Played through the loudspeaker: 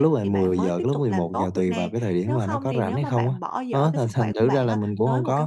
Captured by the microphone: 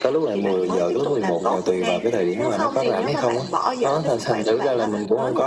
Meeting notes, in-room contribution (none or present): none